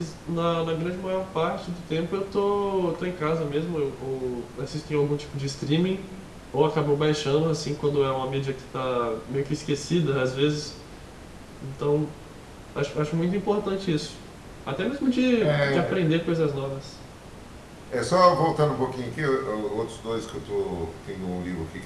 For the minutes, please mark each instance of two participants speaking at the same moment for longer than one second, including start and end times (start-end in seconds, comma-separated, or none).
none